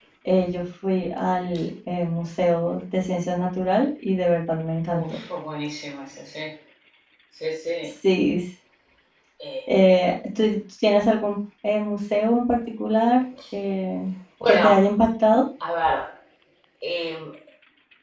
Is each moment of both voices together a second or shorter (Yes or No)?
Yes